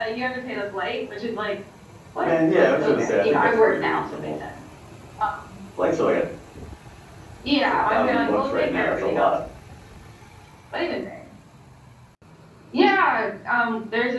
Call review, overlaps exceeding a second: present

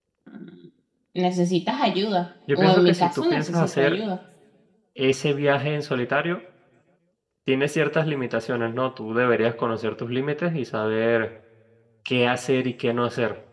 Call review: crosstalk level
present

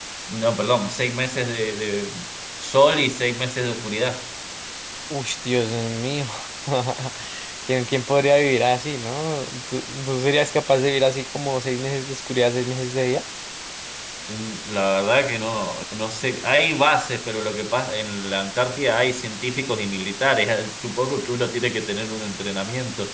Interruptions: none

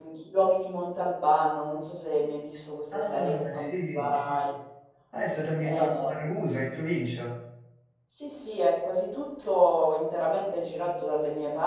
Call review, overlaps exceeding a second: present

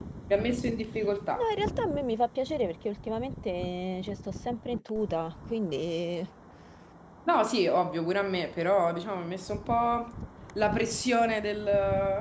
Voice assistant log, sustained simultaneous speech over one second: none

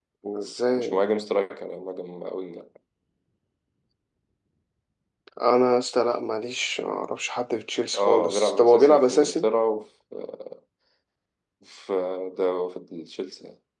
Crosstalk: present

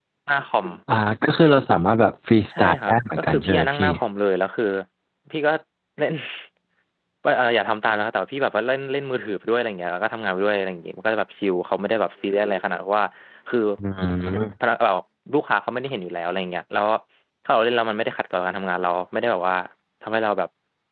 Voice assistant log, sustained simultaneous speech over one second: present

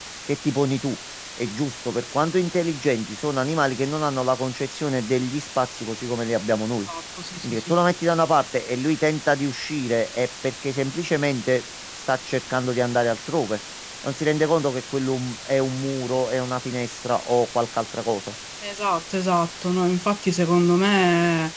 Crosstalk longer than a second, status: none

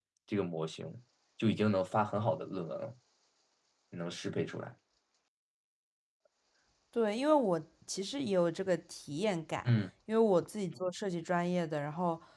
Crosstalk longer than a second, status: none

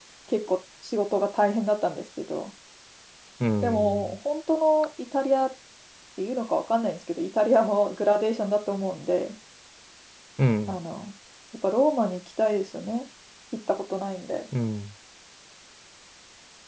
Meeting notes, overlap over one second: none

